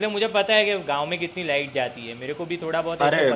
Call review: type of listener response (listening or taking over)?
taking over